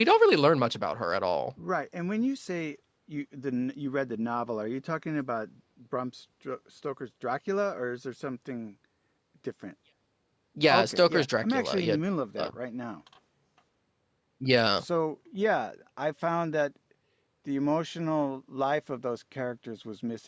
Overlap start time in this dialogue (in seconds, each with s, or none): 10.7 s